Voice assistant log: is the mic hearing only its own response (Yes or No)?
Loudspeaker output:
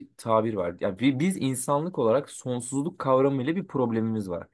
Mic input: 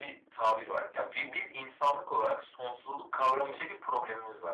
Yes